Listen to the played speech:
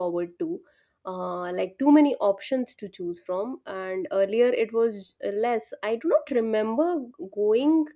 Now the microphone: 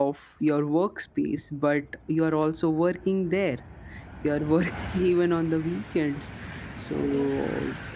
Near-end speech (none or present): present